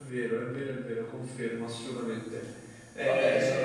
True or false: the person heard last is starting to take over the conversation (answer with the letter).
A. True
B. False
A